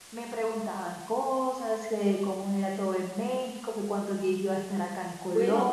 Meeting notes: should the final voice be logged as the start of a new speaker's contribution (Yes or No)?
Yes